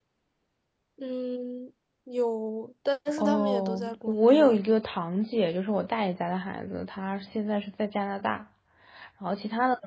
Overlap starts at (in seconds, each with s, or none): 3.2 s